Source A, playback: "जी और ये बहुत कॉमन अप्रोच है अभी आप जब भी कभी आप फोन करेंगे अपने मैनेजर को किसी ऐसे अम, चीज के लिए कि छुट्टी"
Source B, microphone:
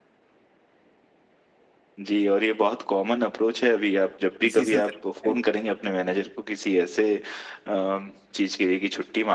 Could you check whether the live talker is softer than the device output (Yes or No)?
Yes